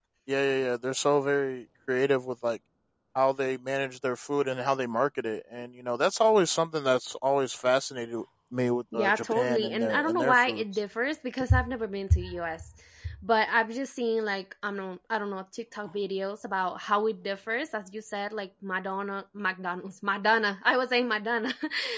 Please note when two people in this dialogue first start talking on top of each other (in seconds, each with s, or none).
8.9 s